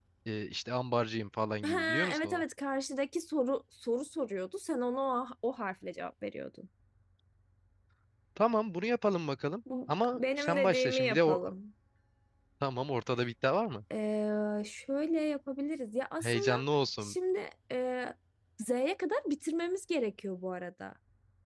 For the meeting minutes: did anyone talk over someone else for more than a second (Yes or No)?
Yes